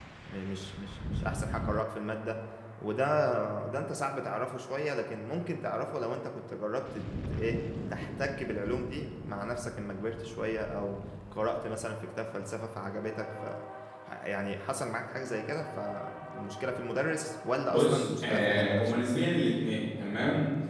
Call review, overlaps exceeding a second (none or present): present